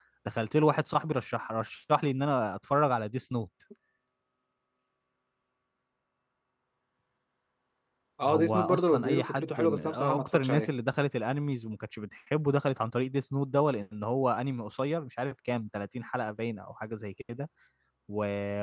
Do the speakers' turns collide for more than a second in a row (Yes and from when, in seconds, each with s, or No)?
Yes, from 8.3 s